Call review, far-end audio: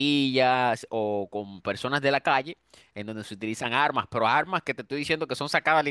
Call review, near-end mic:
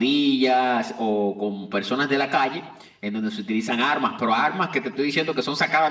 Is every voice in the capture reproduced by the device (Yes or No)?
Yes